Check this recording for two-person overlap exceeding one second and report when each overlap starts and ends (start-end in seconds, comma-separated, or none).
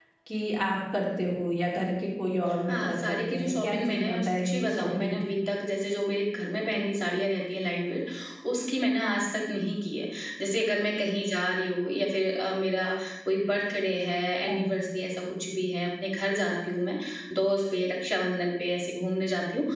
2.7-5.3